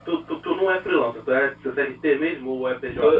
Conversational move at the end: taking over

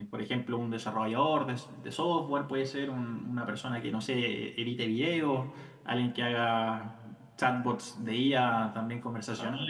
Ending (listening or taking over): listening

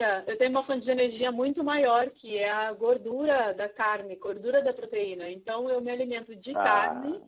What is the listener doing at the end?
listening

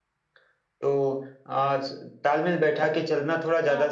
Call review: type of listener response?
taking over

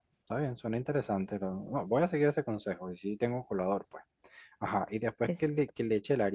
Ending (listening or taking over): listening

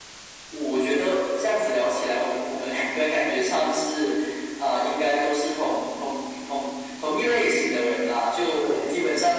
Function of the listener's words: listening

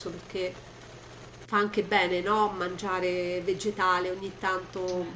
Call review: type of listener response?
listening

